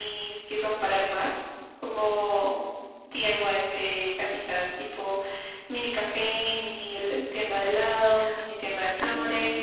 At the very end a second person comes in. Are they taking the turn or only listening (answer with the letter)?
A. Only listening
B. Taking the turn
B